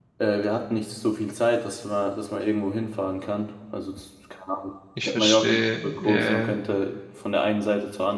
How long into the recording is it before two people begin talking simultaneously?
5.1 s

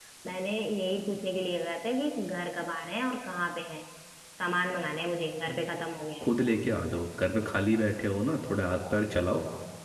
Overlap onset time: none

